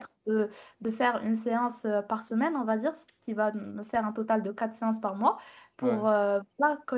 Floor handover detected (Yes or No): No